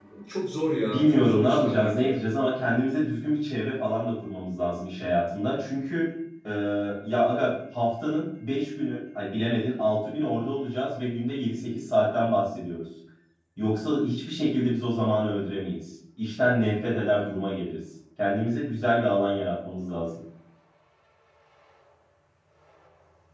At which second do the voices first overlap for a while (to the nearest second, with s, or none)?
1 s